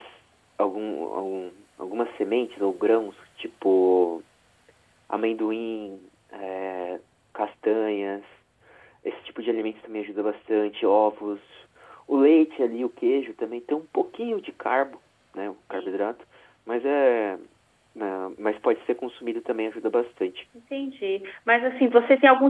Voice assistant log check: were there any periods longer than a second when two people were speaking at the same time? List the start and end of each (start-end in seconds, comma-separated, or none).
none